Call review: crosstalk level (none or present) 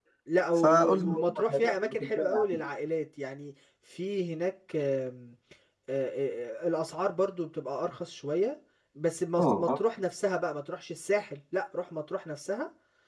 present